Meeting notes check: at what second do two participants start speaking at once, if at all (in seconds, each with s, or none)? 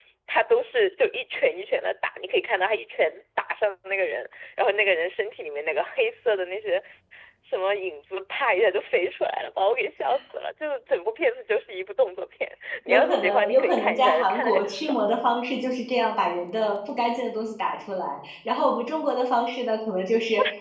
12.9 s